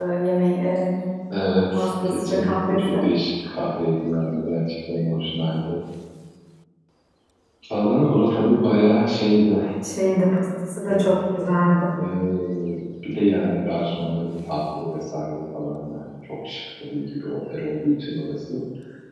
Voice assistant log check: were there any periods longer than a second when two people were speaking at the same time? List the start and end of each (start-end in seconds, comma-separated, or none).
1.7-3.0